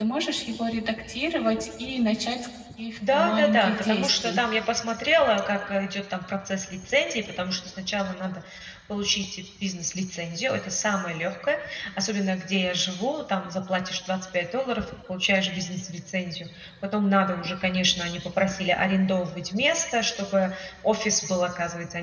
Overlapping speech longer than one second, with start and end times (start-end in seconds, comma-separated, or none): 3.1-4.4